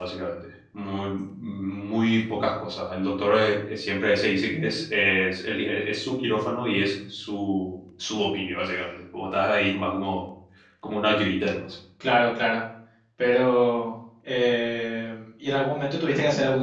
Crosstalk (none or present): none